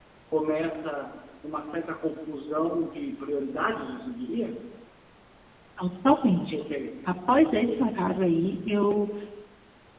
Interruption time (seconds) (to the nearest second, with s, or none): none